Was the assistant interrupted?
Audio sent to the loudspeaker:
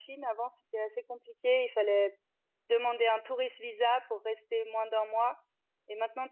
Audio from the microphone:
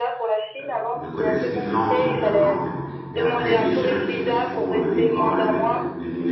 Yes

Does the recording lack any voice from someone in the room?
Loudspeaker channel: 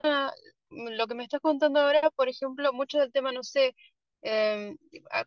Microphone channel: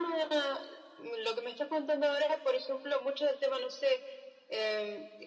Yes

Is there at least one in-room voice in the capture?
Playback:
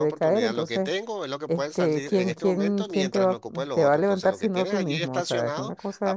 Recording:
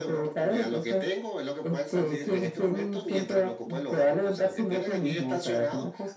No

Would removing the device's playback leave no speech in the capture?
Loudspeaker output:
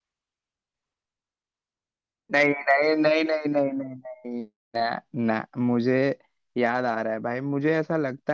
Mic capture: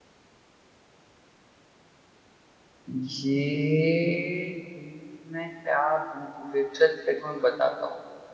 No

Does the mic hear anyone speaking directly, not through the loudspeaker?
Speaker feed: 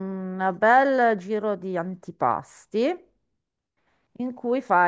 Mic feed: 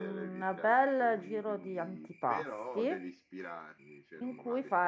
Yes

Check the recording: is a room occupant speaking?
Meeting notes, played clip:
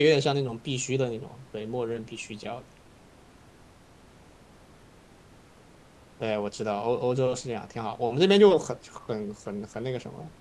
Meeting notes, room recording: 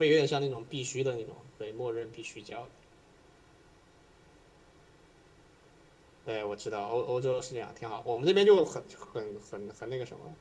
No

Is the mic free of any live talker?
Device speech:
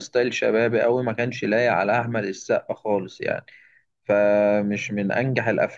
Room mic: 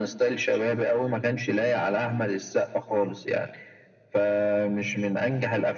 Yes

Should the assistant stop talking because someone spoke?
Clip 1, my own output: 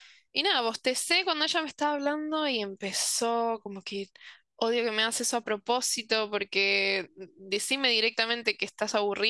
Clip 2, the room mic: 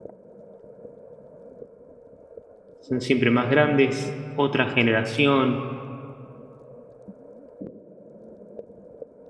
Yes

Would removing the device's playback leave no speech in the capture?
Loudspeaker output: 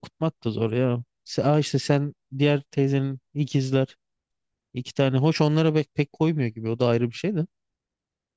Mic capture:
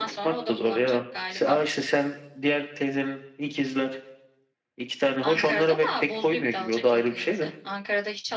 No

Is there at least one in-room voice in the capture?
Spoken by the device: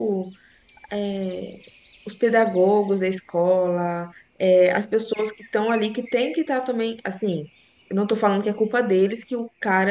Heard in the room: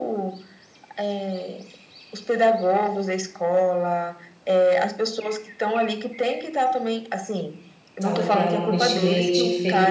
Yes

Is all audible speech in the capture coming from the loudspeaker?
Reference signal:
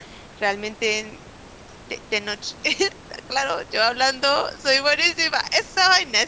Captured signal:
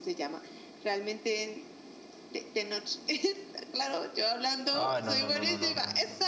No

